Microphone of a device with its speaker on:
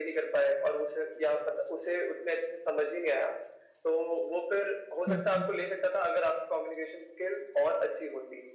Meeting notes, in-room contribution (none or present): present